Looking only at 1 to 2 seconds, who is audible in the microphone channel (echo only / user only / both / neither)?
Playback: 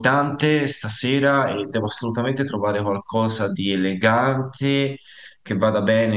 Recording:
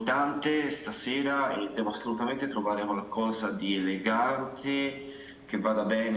echo only